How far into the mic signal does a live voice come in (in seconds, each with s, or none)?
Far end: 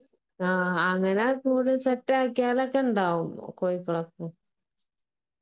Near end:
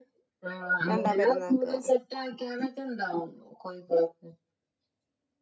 0.9 s